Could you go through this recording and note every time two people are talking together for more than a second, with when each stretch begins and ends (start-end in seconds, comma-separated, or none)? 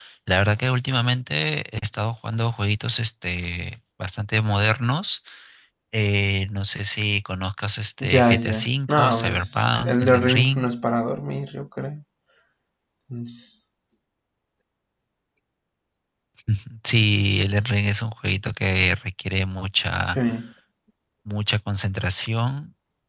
8.0-10.7